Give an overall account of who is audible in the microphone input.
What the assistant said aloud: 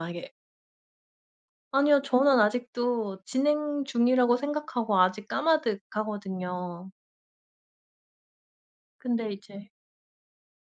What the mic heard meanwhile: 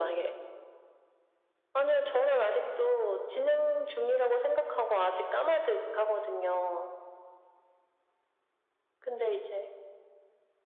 echo only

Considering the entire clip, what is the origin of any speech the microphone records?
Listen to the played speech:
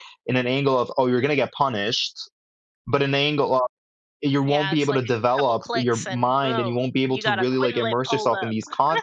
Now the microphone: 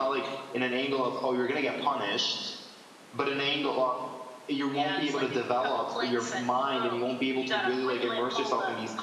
echo only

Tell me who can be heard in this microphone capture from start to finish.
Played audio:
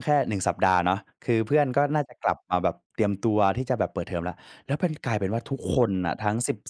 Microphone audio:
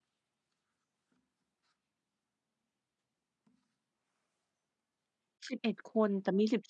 user only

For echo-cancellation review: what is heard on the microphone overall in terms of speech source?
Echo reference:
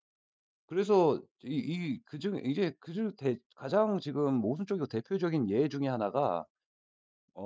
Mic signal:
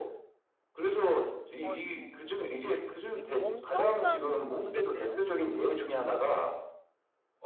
both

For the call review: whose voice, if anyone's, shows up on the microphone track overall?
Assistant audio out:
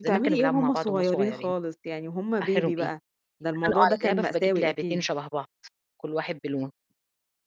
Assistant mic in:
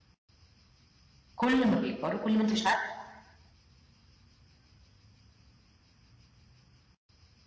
user only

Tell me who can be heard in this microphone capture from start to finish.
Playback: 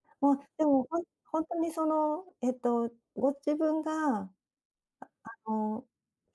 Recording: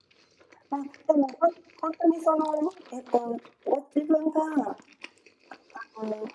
echo only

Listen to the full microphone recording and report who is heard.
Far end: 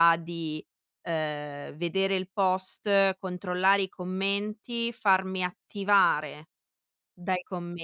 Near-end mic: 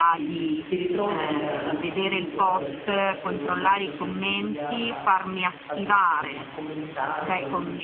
both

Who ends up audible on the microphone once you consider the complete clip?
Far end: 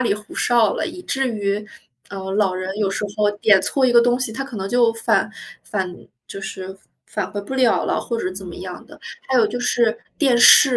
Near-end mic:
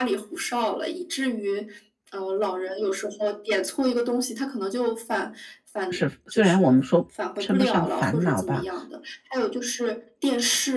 both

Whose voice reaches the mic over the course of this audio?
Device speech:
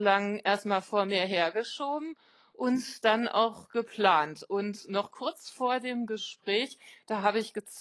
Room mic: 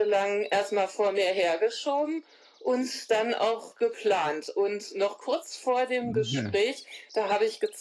both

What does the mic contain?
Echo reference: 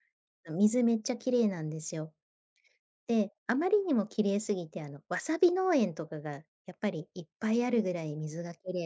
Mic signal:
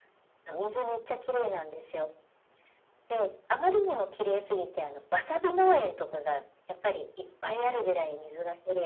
echo only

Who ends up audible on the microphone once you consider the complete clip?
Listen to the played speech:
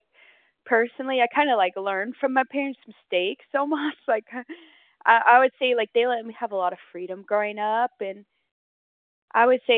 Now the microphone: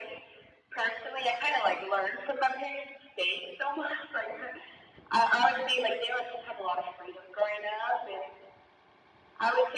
echo only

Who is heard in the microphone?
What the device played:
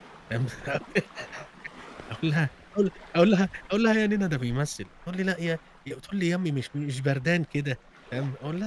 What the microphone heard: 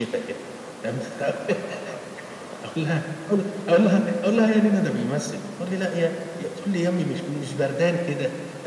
echo only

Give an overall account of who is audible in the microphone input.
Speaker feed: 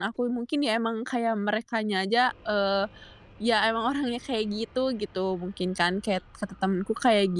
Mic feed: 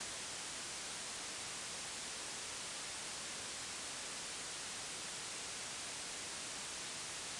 neither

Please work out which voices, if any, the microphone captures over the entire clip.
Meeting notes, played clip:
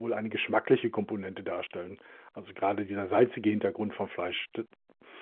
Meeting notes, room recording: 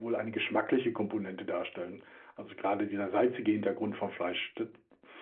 echo only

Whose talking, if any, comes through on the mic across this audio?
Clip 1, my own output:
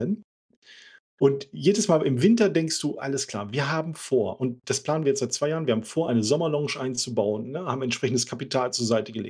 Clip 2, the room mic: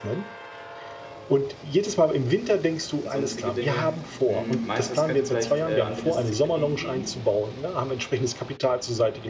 both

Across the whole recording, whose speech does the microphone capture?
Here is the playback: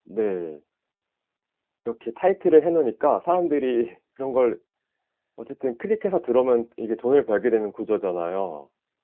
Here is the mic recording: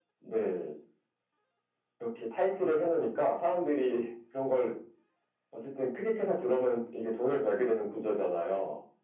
echo only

